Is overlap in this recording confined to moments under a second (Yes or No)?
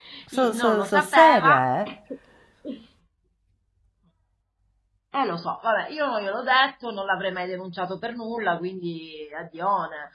No